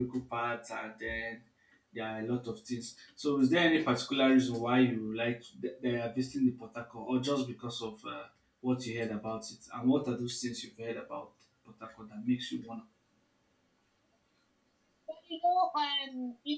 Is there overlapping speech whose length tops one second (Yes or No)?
No